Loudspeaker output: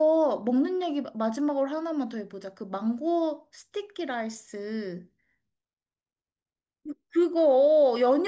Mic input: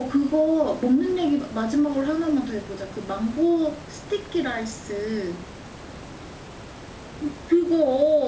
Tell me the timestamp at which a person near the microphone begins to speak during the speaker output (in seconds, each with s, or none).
none